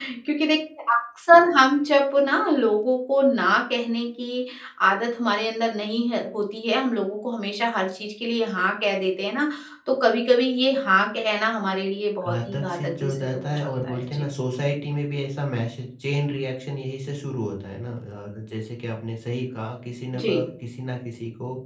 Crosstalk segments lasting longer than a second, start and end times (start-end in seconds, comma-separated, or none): 12.3-14.2